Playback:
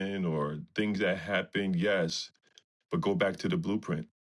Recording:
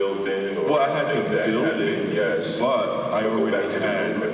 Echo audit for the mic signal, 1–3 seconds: both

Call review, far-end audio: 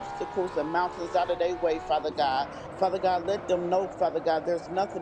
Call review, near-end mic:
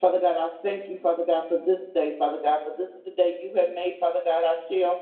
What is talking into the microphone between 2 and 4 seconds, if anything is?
user only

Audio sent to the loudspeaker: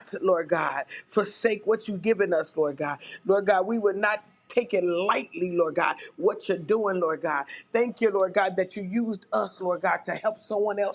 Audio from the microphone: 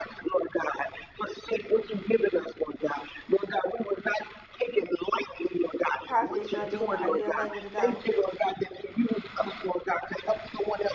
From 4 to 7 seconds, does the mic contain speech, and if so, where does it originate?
both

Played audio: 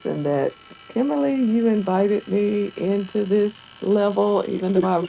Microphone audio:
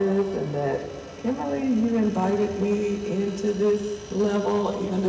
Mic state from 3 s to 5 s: echo only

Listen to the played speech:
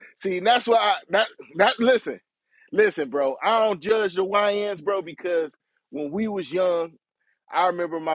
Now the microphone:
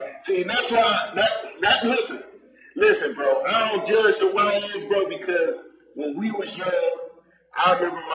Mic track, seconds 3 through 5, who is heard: echo only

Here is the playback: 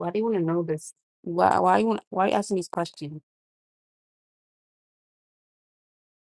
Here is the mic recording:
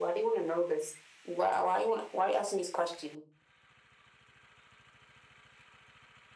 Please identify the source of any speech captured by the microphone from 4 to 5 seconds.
neither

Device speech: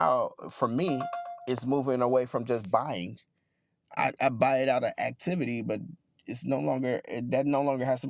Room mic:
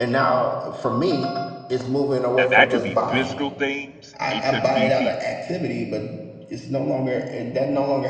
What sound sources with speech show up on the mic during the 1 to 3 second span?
both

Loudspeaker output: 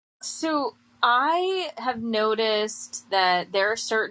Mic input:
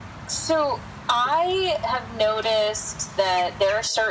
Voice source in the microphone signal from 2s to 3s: echo only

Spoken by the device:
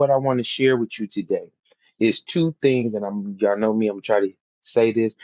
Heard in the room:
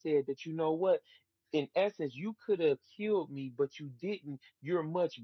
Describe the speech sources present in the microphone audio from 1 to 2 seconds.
user only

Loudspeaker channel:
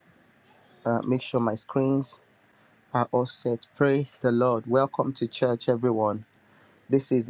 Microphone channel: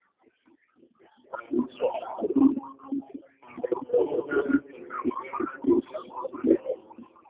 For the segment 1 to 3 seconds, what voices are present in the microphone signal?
echo only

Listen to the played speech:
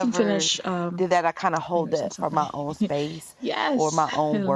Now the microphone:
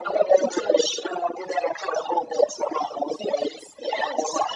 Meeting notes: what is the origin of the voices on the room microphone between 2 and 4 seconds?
echo only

